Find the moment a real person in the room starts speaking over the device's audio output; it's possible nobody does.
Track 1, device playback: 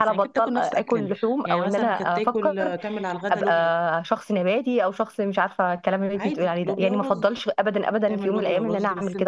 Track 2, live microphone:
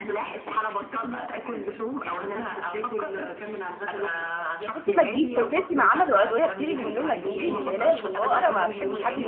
4.6 s

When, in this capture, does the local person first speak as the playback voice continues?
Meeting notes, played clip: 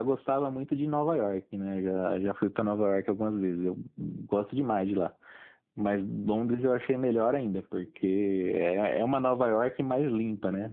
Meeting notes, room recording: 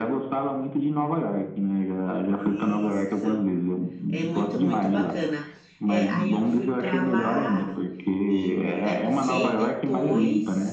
2.4 s

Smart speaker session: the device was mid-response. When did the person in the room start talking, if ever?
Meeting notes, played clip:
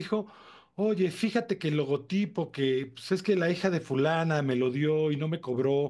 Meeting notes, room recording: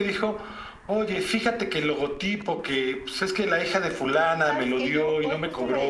4.4 s

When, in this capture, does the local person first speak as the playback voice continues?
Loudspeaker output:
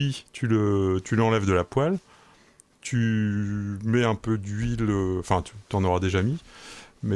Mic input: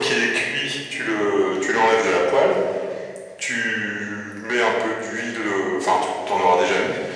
none

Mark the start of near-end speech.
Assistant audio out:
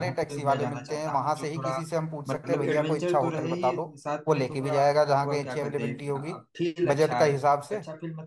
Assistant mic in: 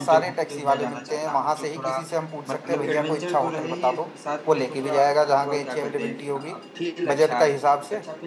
none

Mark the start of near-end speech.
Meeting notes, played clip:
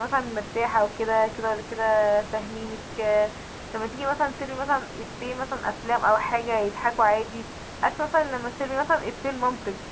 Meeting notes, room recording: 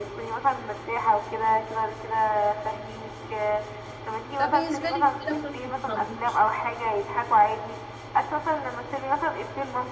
4.3 s

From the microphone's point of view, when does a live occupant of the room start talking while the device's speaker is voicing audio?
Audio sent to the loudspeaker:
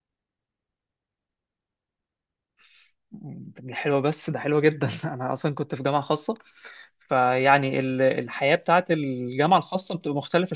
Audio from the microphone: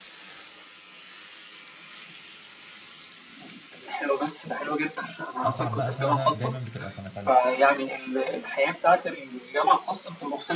5.4 s

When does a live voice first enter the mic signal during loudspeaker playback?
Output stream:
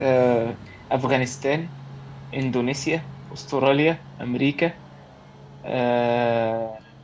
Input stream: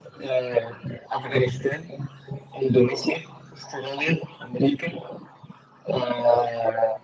none

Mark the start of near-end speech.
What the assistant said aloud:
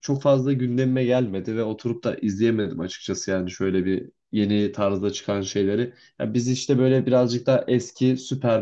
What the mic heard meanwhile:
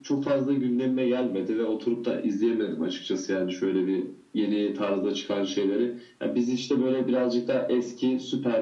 none

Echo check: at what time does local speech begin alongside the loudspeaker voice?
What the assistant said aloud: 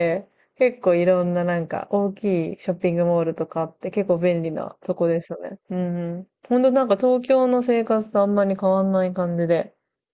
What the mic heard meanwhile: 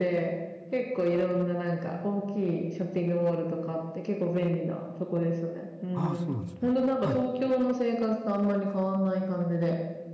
5.9 s

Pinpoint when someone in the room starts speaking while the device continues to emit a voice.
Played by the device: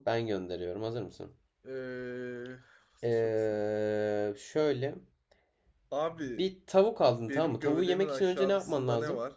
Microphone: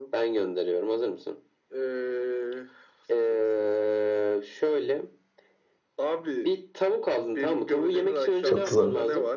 8.4 s

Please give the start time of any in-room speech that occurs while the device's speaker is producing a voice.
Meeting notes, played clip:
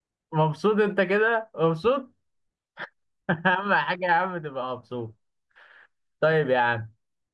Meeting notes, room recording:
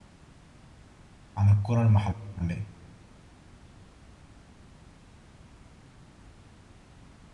1.4 s

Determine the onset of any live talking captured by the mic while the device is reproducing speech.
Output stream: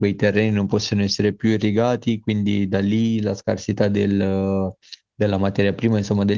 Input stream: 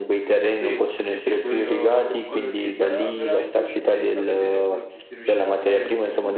0.6 s

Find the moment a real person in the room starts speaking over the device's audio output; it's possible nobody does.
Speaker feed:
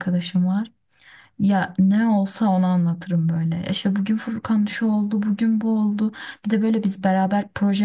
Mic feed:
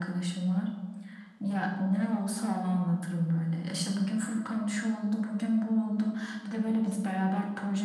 none

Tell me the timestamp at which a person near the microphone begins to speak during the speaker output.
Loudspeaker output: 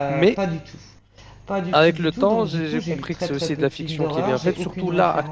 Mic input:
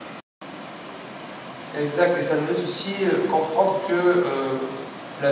1.7 s

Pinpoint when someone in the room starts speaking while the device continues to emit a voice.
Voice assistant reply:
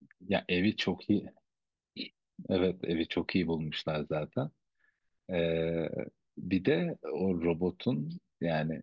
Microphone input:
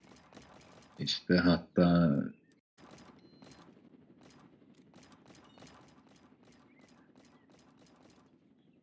1.0 s

